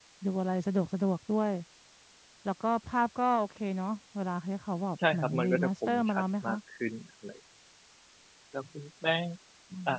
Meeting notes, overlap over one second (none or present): present